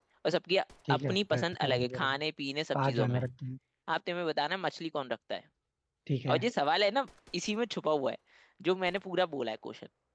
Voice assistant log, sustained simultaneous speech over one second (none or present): present